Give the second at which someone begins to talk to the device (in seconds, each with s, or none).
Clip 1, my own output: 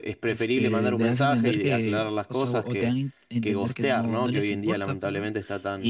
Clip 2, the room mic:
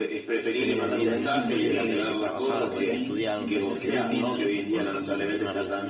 0.5 s